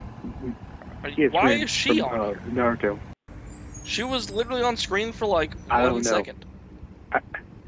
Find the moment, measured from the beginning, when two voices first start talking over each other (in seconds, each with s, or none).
1.2 s